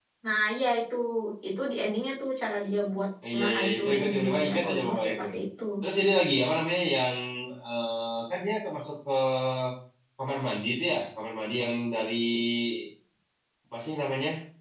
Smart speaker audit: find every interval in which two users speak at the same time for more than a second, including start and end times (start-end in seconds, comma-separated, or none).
3.3-5.2